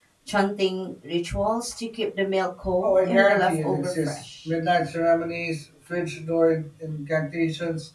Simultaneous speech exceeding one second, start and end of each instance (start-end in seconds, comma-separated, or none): 2.8-4.5